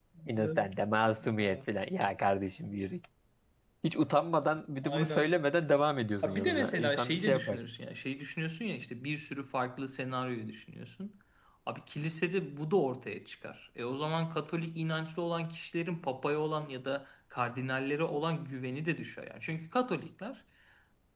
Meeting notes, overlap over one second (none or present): present